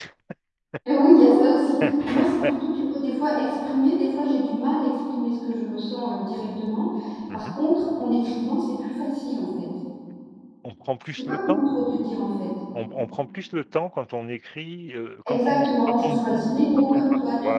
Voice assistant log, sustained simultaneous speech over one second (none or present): present